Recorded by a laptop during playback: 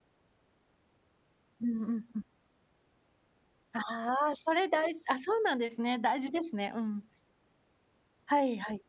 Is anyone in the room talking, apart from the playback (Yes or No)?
Yes